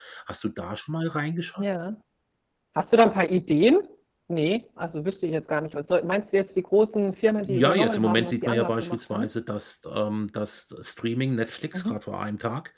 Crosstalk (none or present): present